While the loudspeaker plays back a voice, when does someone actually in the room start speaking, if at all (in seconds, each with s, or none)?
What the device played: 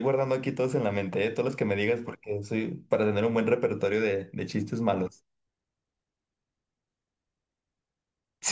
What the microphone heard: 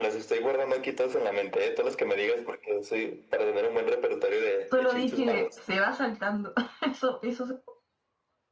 4.7 s